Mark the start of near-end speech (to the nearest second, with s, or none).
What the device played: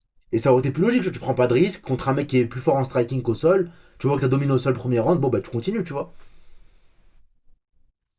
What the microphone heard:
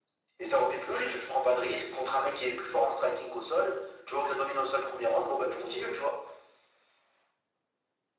none